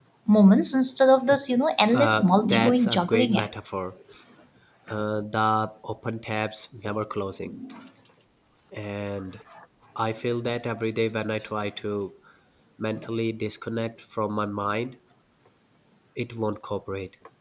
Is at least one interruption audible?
Yes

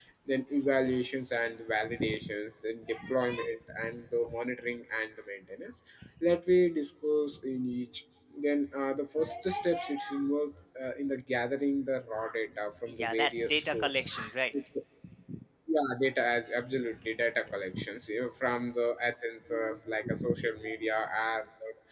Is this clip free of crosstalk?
No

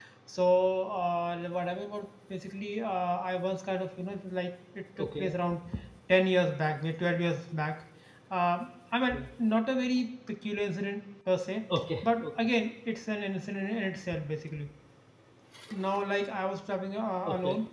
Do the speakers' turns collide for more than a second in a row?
No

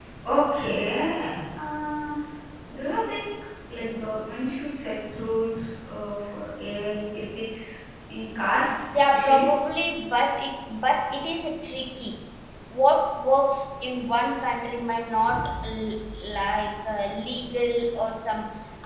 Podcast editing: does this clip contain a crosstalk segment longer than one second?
No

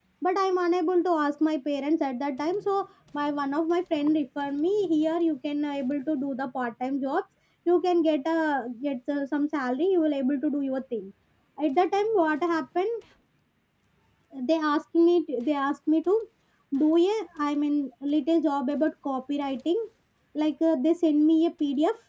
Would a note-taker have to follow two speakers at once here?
No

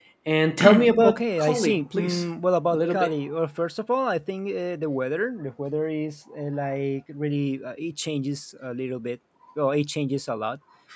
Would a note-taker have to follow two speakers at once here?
Yes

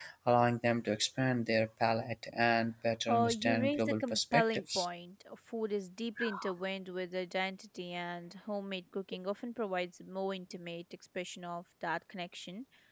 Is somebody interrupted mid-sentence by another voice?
Yes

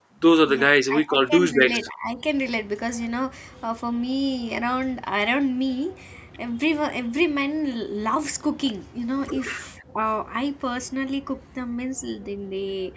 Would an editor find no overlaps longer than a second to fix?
No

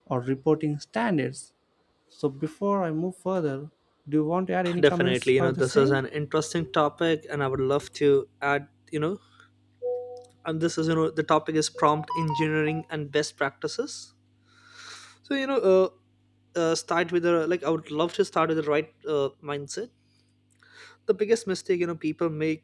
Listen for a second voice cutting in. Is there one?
Yes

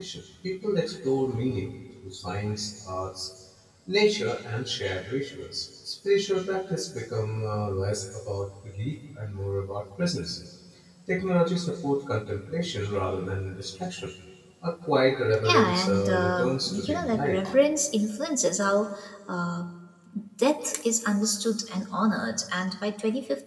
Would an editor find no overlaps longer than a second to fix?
No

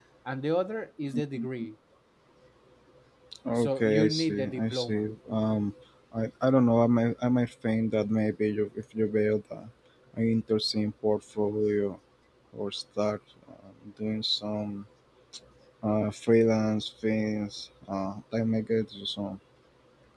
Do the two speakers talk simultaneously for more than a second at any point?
Yes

